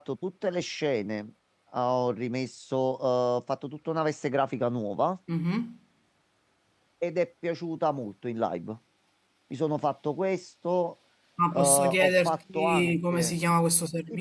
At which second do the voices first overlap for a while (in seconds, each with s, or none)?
11.5 s